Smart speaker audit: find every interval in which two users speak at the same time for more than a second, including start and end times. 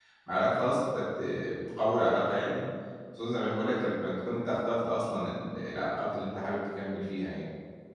none

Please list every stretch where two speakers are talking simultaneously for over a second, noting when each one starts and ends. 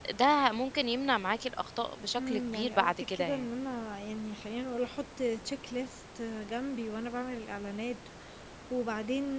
2.2-3.5

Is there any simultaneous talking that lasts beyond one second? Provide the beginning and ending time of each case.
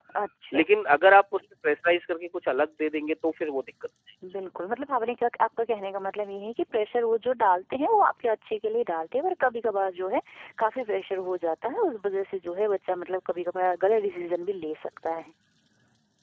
none

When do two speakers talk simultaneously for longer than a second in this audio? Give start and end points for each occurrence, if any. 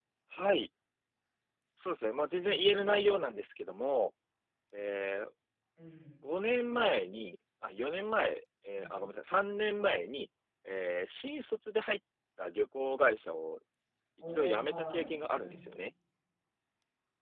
14.3-15.6

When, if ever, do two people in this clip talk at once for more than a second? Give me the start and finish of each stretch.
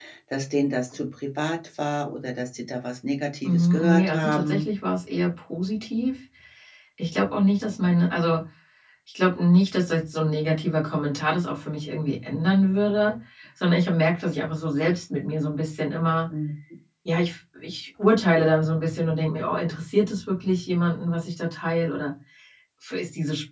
3.5-4.7

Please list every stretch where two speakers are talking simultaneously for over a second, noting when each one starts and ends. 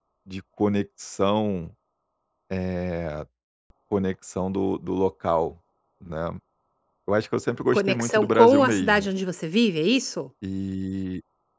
7.7-9.1

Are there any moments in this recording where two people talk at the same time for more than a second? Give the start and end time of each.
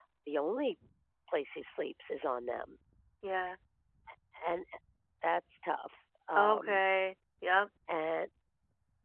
none

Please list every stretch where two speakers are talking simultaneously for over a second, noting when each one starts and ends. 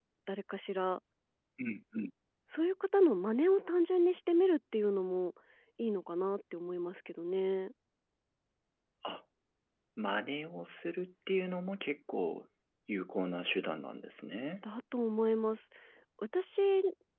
none

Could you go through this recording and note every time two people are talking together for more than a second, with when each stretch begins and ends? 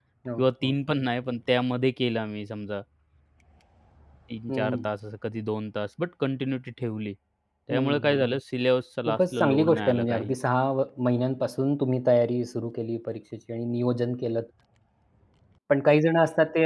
9.1-10.4

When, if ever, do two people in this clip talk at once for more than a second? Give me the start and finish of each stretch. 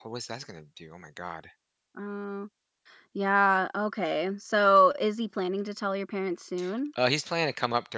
none

